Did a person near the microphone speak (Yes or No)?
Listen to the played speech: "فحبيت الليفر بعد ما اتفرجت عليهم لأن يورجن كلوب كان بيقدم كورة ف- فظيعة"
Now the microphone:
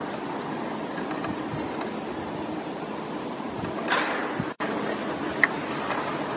No